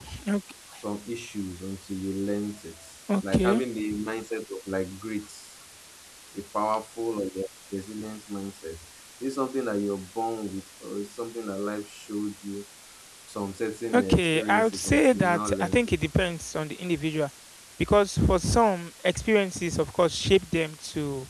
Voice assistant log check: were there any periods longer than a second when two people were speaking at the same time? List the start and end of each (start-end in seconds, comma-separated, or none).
13.9-15.9